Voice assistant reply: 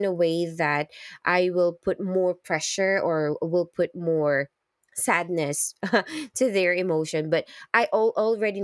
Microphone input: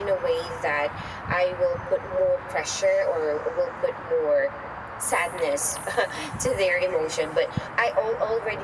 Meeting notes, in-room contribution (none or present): none